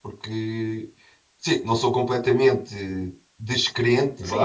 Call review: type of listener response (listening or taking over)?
taking over